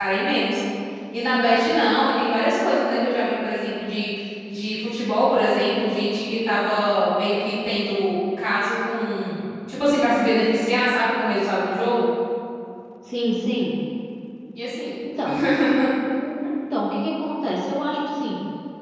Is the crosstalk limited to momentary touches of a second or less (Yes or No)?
Yes